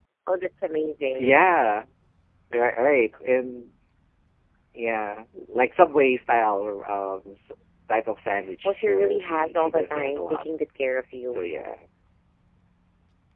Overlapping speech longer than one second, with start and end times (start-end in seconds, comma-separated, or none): 8.6-10.4